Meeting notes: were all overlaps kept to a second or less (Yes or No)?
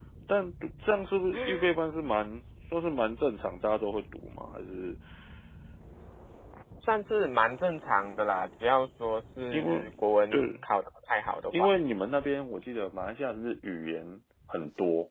Yes